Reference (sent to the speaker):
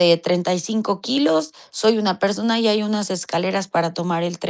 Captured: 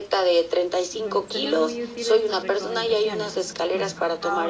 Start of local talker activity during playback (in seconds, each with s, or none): 0.9 s